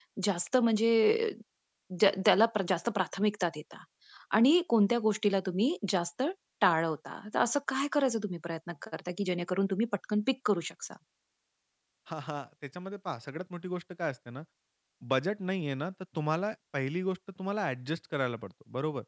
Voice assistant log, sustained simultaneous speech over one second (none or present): none